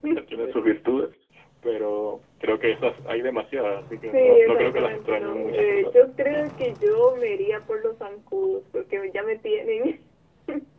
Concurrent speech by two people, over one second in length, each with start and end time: 4.1-6.0

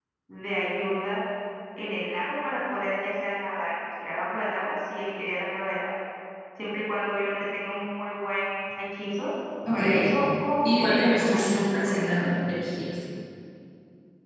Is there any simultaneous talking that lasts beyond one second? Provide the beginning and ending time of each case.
10.6-12.0

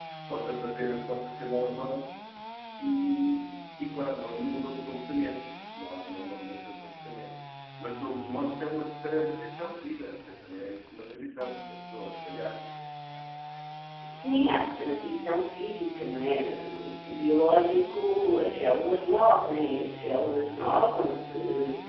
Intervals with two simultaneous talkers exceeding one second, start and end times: none

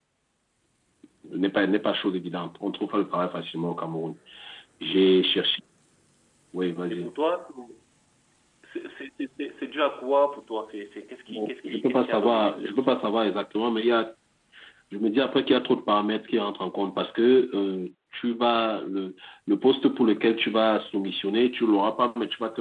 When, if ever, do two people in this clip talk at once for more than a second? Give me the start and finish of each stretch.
11.3-13.0

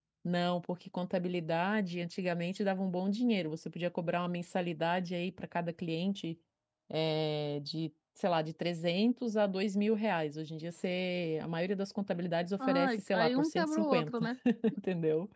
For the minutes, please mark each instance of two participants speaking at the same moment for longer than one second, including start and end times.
12.6-14.3

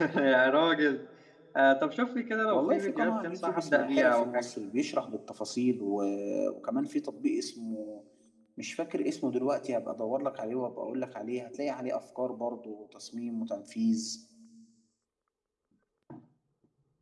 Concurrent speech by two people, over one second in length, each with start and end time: 2.5-4.5

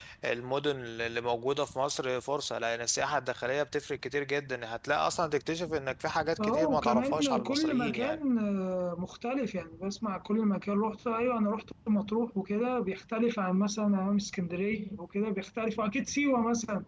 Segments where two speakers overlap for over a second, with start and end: 6.4-8.2

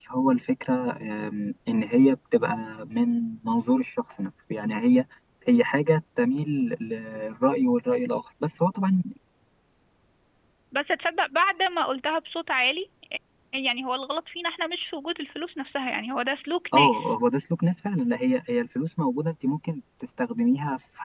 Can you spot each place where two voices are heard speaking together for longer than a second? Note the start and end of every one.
none

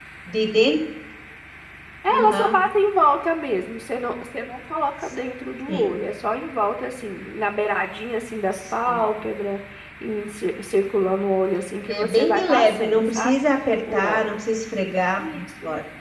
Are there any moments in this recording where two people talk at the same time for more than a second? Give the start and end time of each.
11.9-13.4

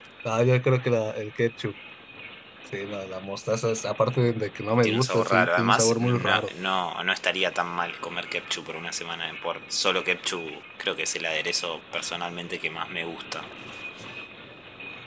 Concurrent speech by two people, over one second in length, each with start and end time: 4.8-6.5

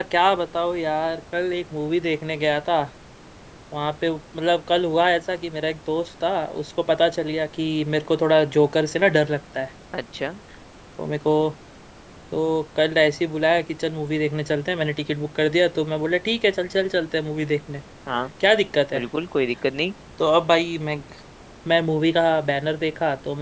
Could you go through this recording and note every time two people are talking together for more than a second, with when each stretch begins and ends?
none

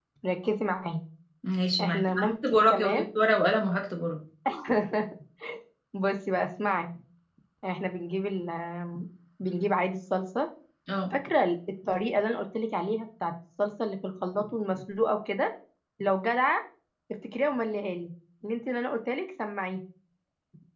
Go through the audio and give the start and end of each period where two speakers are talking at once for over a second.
1.8-3.0

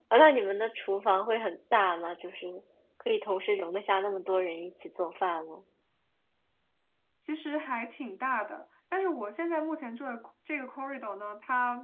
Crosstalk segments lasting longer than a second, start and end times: none

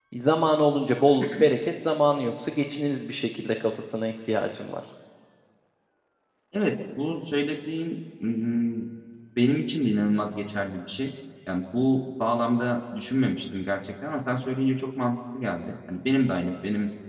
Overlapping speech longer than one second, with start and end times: none

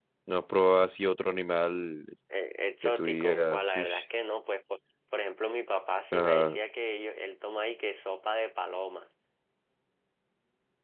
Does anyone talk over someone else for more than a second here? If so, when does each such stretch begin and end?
2.8-4.0

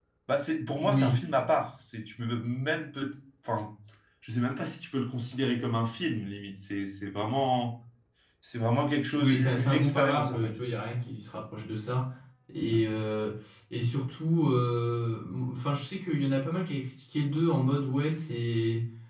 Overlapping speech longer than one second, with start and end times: 9.2-10.5

